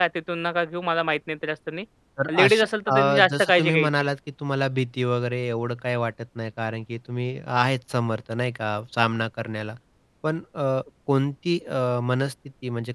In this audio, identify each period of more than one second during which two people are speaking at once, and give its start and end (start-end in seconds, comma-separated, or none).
2.4-3.9